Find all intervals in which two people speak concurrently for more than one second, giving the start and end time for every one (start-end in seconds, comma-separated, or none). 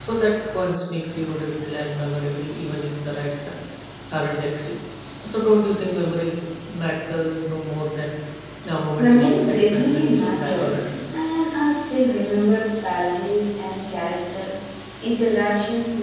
9.0-10.7